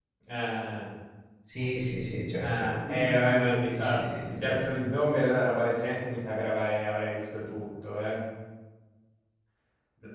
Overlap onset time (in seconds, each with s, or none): 2.4 s